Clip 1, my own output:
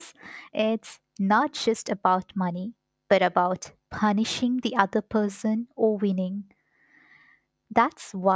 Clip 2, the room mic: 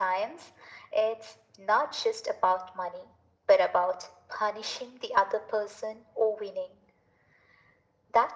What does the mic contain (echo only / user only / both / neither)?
echo only